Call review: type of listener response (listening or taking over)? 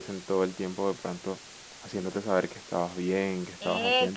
taking over